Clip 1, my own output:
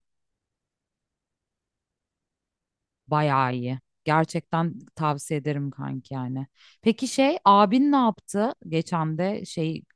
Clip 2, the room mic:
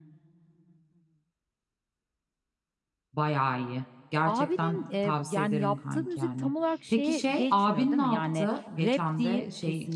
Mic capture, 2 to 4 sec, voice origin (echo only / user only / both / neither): echo only